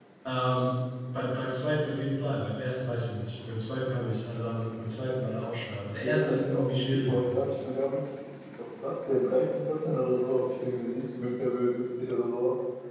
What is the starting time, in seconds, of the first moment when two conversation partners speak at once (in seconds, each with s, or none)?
6.0 s